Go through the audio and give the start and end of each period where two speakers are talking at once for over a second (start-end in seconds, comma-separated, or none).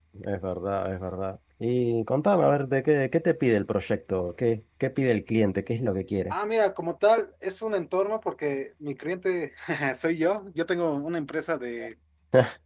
none